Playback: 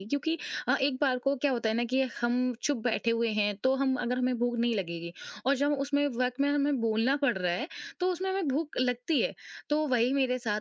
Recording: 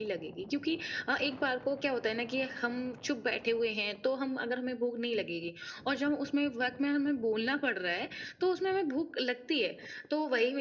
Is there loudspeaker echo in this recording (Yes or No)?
Yes